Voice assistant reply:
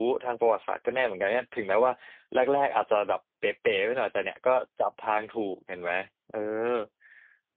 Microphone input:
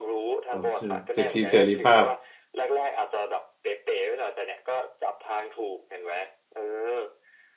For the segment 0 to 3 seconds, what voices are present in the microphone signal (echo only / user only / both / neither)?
both